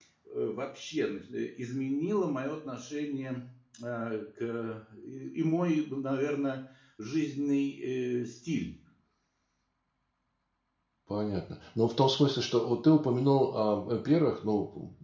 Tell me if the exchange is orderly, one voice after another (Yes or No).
Yes